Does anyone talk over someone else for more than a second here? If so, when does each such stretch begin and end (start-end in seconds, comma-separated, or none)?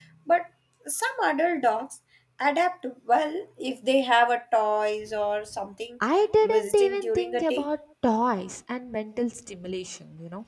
6.4-7.7